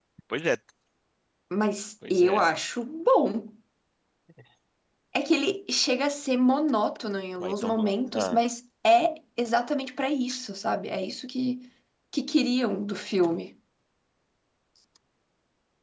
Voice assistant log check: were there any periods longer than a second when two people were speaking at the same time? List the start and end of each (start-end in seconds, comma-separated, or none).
none